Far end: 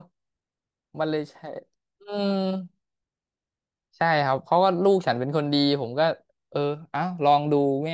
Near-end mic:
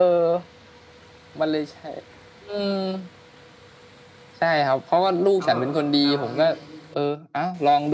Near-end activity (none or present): present